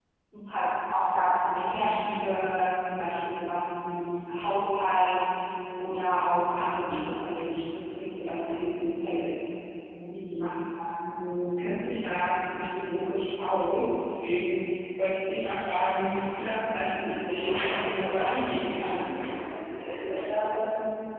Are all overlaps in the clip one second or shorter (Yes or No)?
No